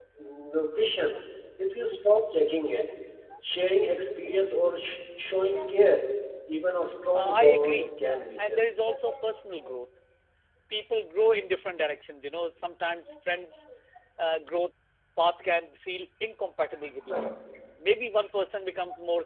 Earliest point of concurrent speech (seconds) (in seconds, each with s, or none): 7.1 s